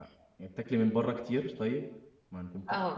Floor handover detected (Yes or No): Yes